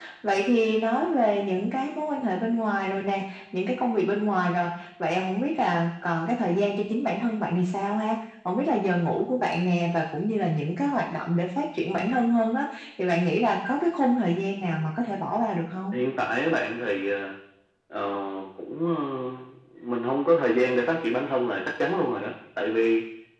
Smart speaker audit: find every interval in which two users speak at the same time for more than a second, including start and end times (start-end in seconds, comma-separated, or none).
none